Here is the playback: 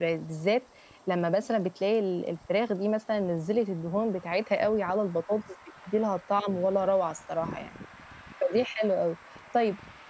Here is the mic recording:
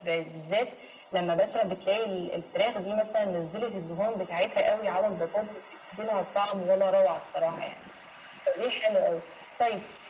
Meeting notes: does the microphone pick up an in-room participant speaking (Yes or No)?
No